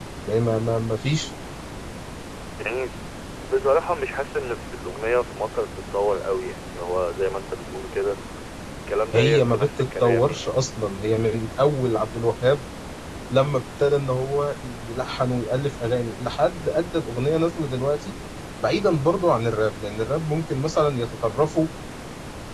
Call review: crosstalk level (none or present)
present